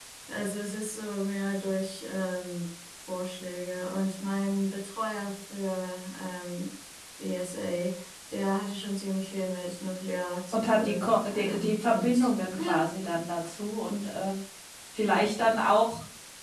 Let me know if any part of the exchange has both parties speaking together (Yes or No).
Yes